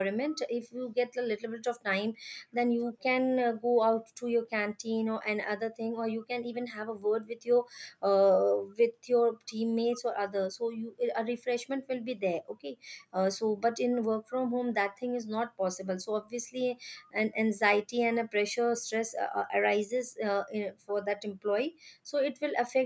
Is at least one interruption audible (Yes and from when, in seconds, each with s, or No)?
No